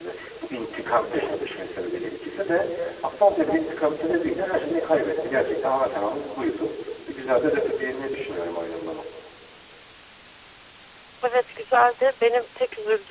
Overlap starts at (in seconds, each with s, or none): none